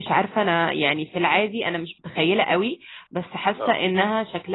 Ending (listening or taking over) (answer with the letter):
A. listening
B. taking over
A